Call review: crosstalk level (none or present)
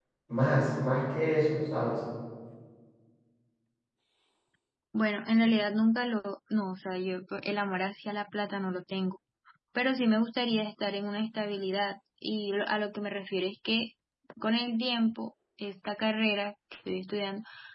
none